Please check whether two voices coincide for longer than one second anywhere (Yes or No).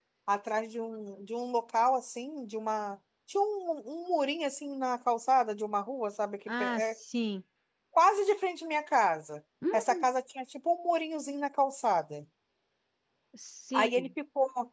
No